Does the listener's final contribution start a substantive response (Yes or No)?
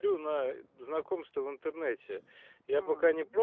No